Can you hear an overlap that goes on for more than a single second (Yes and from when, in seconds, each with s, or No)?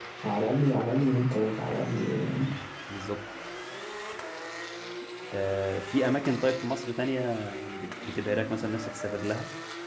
No